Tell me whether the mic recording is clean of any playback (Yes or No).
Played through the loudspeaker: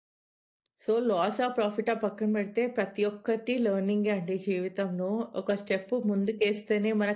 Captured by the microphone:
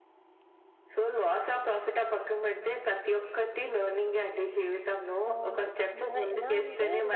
No